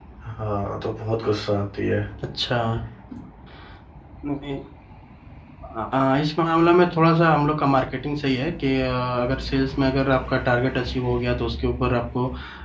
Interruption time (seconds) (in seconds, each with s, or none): none